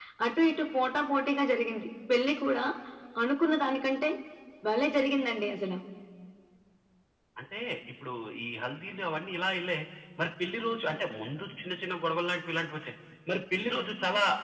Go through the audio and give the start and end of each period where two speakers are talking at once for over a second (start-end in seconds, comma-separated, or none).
none